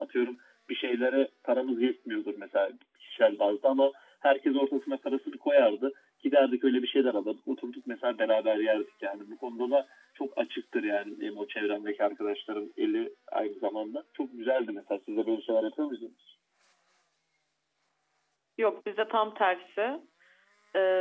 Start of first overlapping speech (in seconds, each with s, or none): none